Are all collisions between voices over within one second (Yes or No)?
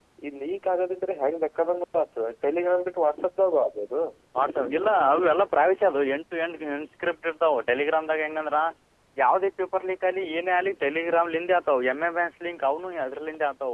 Yes